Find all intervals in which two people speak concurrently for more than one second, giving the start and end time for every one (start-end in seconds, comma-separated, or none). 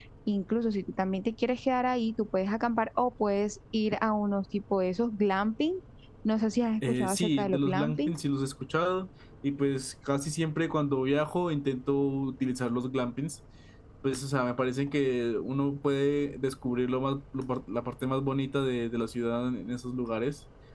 6.9-8.1